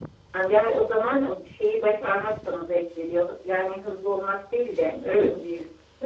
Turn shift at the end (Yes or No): Yes